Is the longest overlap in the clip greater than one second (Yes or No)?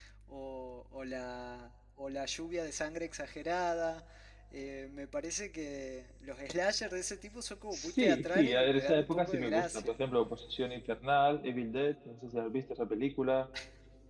Yes